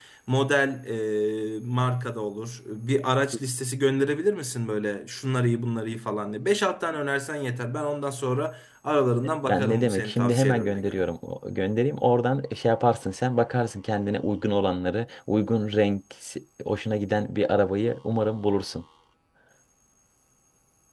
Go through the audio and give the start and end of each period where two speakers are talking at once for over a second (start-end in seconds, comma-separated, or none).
9.4-11.1